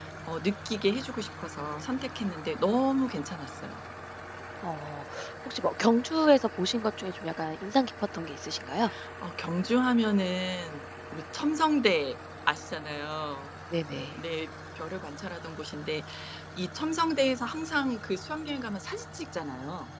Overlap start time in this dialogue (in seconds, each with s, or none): none